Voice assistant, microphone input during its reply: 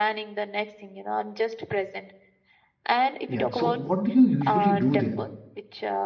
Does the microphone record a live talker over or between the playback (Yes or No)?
Yes